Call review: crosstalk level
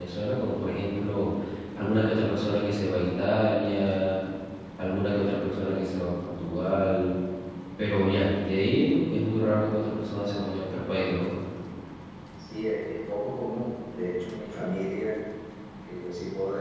none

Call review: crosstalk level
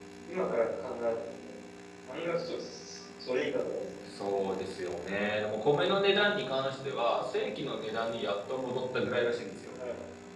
none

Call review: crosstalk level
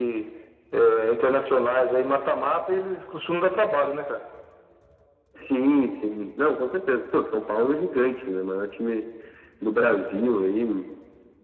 none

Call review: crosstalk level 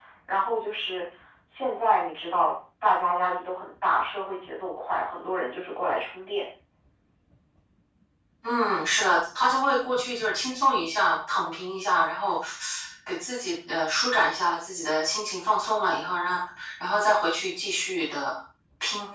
none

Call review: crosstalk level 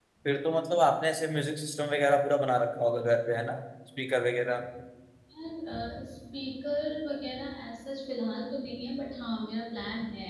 none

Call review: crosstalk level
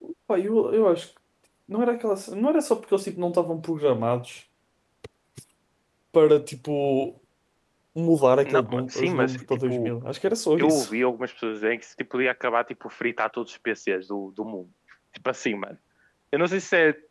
present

